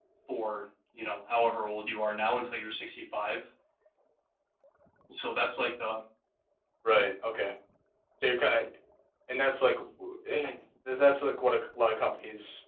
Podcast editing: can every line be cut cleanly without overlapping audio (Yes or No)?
Yes